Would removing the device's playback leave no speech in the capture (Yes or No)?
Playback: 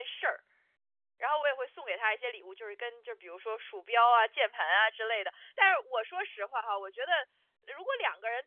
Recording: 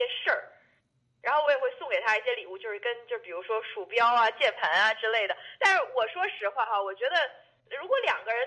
Yes